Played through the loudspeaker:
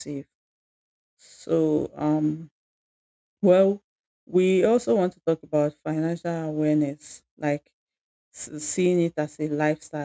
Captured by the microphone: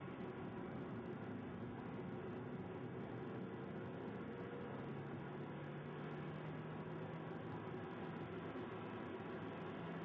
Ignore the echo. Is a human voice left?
No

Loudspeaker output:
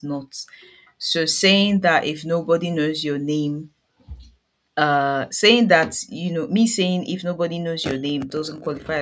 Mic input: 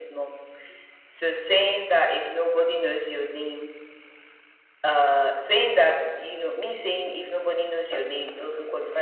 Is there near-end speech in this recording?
No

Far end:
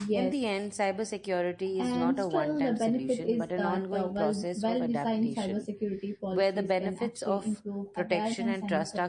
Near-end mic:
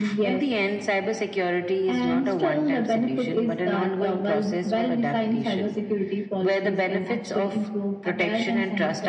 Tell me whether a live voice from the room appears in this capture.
No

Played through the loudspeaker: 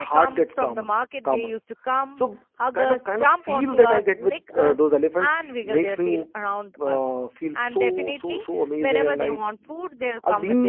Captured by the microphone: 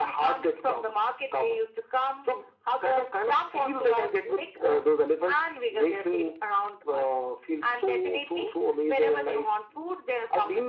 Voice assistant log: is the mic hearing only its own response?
Yes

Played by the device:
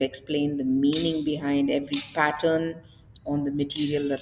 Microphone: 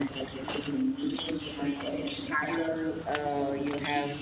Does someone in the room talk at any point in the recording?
Yes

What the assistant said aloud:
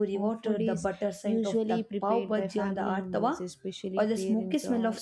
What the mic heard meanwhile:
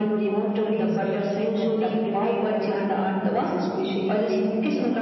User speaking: No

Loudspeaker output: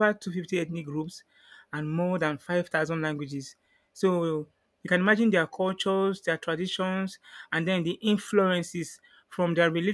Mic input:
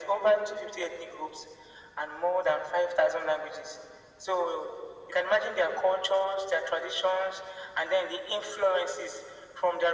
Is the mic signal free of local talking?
Yes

